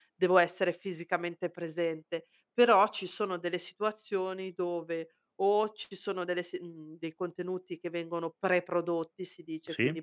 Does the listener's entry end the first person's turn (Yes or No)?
No